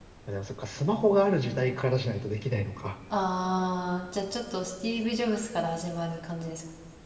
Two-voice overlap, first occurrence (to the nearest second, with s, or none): none